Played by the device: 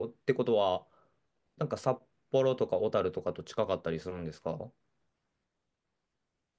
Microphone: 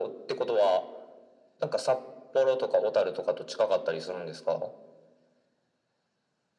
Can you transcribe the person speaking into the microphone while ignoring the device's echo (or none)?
none